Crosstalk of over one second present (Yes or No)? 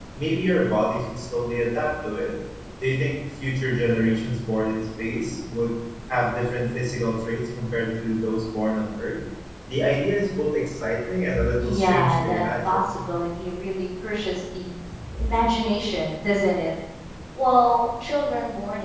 Yes